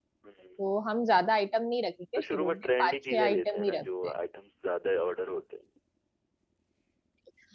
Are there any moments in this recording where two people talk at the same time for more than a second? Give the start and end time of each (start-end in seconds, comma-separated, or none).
2.2-3.9